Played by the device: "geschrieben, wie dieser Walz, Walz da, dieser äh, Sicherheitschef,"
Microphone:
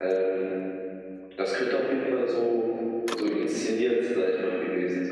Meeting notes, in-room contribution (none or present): present